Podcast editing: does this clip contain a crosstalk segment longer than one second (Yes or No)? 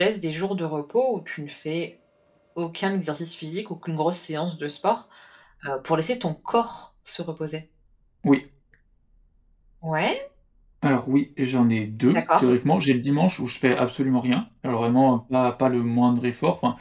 No